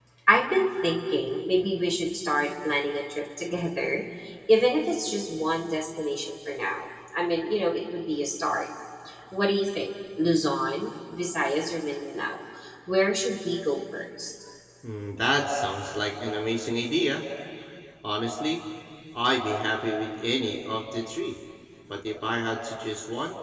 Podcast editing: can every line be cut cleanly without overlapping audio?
Yes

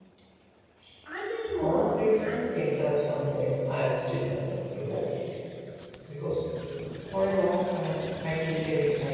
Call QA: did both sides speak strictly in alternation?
No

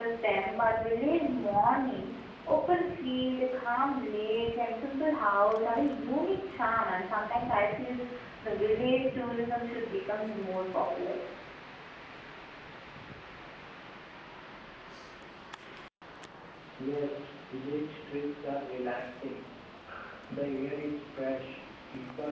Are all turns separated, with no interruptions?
Yes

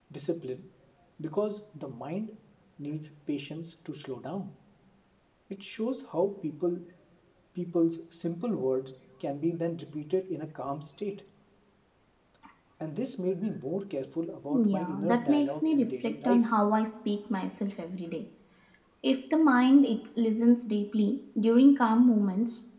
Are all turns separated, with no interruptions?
No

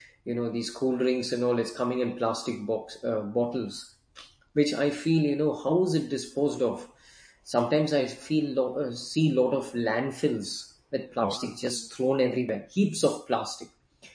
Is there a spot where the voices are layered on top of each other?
No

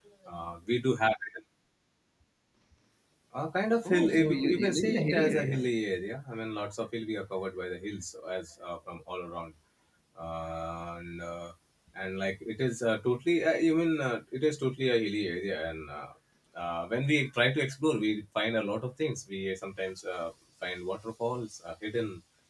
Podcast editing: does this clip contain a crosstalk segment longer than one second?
Yes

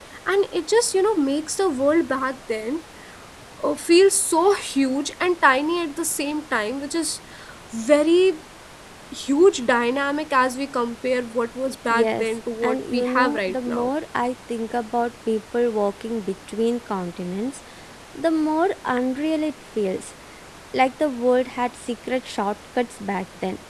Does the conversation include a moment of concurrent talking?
Yes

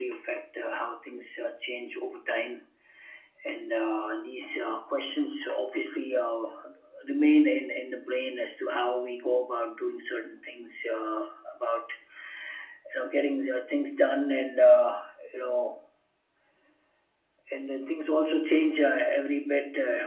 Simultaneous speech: No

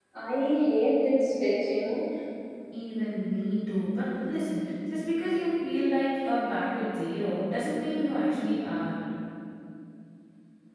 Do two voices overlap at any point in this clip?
No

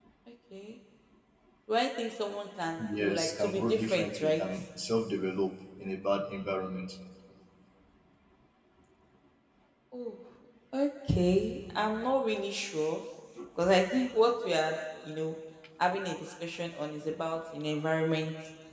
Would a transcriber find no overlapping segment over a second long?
No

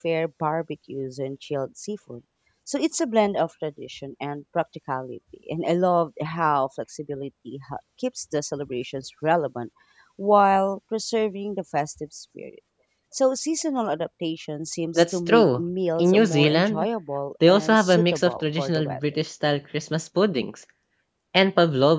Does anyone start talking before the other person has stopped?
Yes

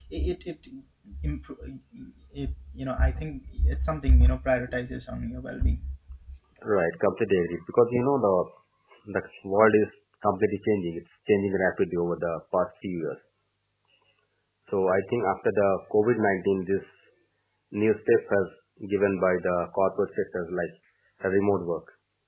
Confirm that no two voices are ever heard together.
Yes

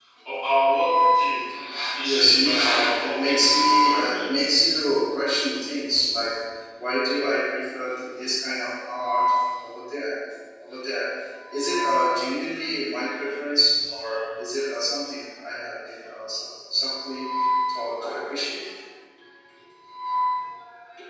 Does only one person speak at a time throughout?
No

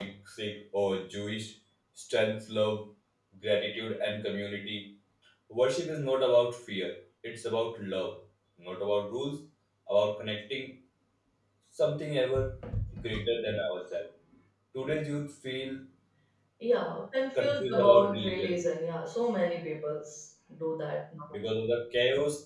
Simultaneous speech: Yes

